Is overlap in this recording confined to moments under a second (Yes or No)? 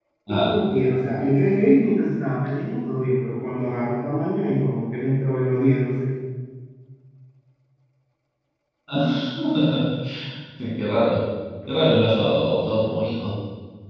Yes